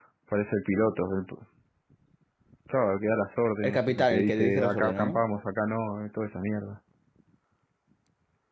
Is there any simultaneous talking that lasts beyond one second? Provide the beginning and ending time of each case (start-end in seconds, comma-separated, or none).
3.6-5.2